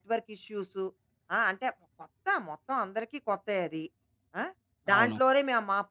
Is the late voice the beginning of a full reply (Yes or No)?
No